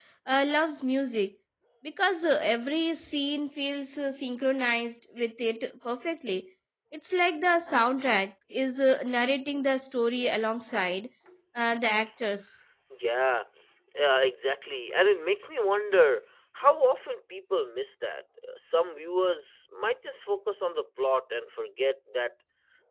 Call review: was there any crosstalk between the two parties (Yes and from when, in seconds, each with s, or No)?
No